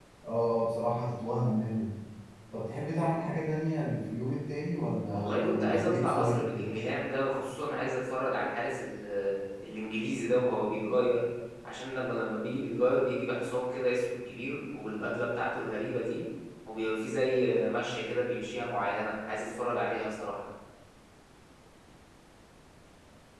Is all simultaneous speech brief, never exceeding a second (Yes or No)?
No